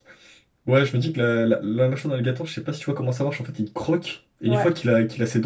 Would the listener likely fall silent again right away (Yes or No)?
Yes